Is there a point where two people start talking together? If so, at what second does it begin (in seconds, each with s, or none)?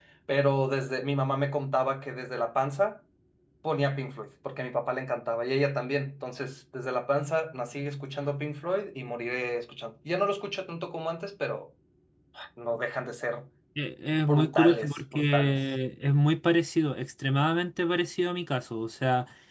14.3 s